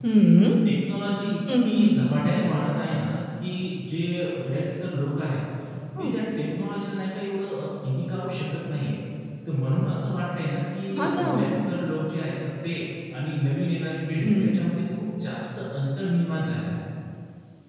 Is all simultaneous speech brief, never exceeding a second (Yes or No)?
Yes